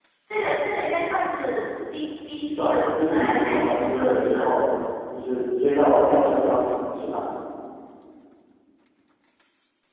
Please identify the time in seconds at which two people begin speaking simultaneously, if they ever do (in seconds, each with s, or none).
2.5 s